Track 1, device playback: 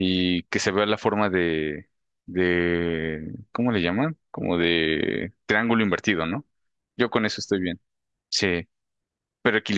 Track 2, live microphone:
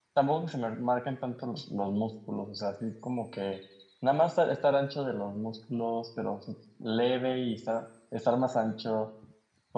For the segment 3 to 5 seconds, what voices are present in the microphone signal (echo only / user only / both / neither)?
user only